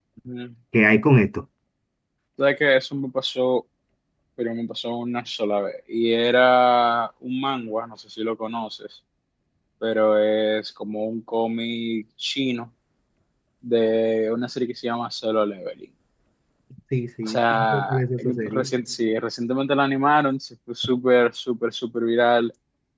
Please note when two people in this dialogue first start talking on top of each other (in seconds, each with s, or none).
17.3 s